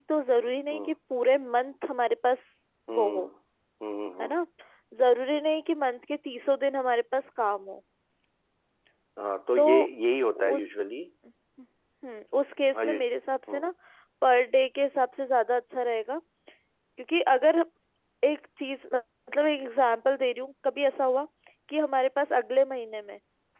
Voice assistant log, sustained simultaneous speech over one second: none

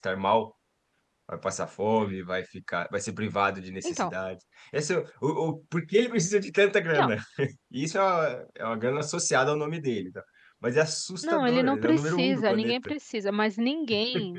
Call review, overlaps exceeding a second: present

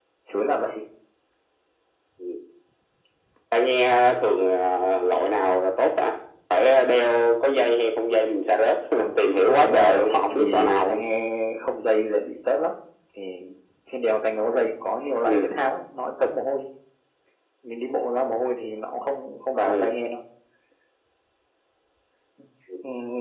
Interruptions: present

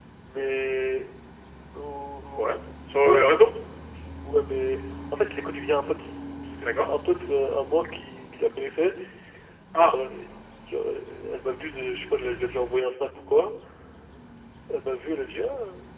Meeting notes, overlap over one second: none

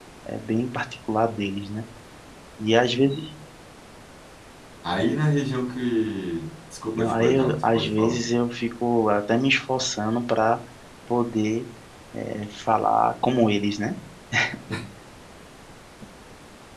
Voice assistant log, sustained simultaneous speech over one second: present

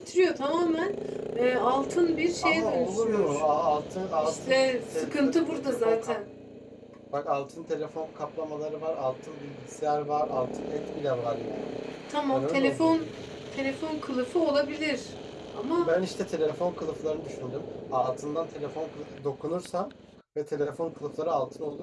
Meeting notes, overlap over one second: present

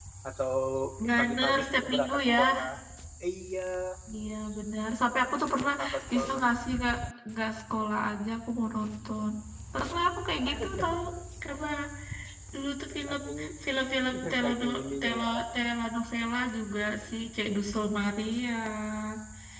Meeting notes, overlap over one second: present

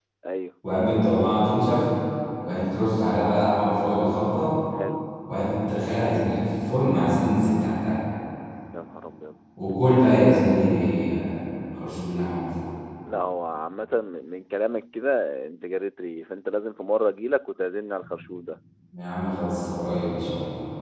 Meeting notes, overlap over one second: none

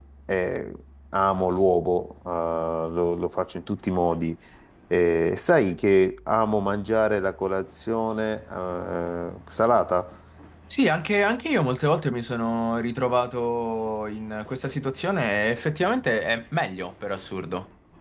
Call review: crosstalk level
none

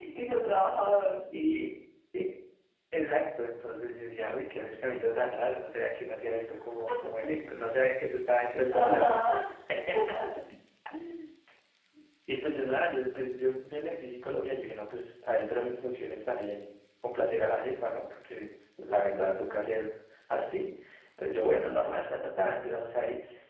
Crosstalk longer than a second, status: none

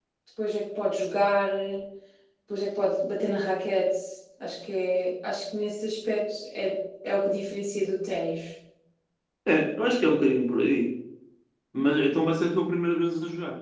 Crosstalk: none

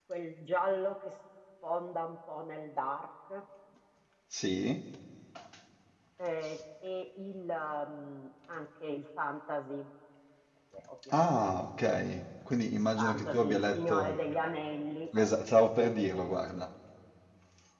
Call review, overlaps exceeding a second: present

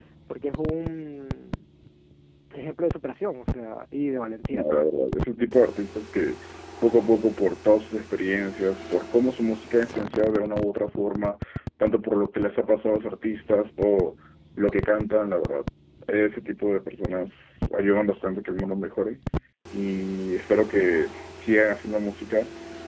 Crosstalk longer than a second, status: none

